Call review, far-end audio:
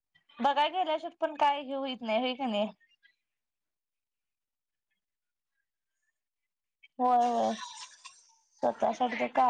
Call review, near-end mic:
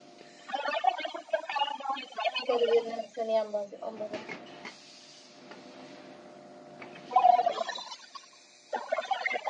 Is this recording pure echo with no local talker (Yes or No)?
No